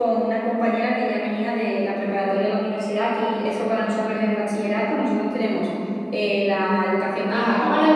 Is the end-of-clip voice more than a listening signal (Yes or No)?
Yes